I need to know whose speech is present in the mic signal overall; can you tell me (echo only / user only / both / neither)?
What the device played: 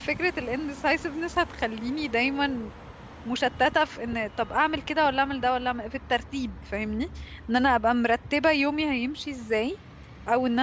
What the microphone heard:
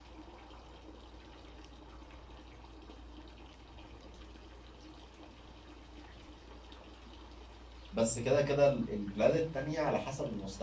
user only